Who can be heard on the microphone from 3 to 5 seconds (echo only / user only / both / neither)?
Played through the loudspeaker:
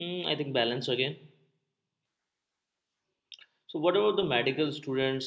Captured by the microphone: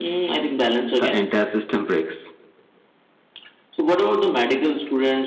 echo only